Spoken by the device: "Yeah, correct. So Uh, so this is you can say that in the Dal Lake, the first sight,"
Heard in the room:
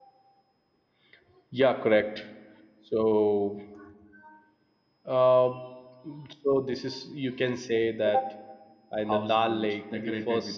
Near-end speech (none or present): present